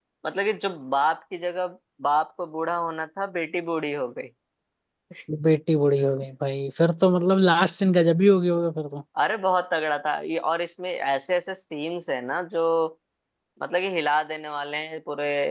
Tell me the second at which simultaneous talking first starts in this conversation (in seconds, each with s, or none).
none